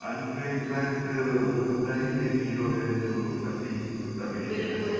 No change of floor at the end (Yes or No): No